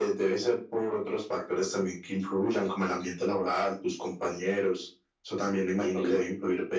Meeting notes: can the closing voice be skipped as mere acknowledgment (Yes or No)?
Yes